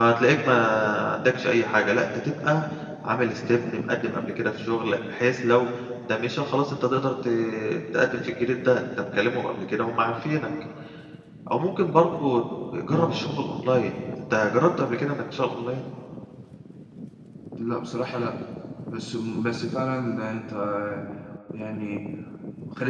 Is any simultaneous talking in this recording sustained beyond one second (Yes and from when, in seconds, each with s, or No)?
No